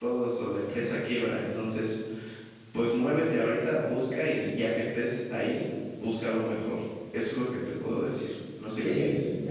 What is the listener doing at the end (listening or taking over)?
taking over